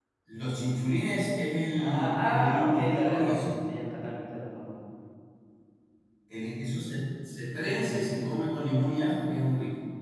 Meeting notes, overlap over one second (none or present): present